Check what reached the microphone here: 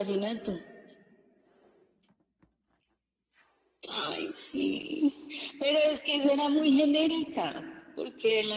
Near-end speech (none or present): none